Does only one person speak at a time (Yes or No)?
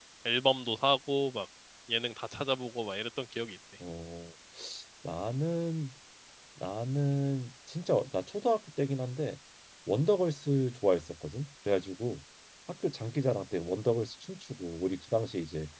Yes